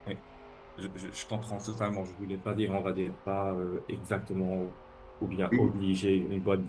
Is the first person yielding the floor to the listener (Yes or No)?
No